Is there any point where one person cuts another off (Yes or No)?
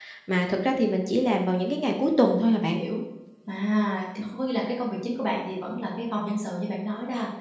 No